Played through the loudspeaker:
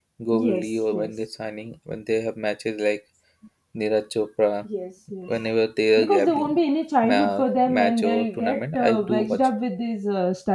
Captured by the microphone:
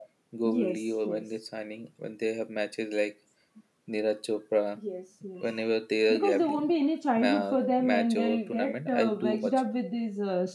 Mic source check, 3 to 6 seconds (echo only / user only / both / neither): echo only